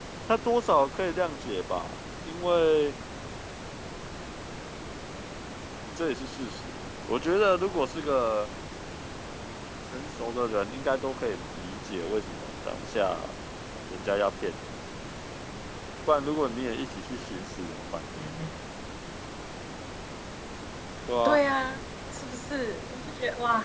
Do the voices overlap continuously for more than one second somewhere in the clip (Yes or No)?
No